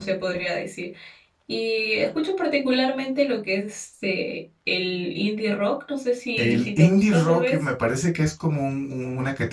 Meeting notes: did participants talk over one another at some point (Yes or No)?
Yes